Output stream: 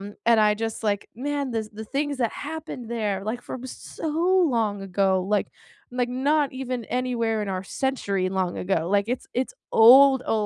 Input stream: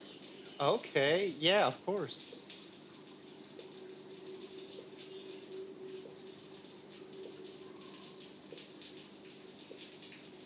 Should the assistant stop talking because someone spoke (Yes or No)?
Yes